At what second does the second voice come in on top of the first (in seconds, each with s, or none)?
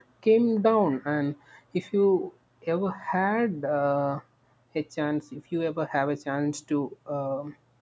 none